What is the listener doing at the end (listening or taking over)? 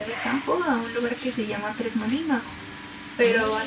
listening